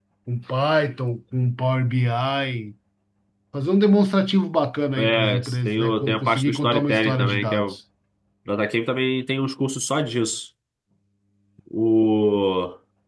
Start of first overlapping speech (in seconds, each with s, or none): 5.0 s